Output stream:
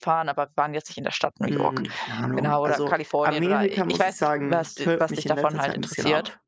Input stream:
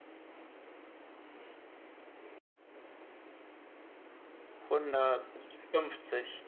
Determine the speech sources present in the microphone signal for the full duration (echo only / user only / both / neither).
user only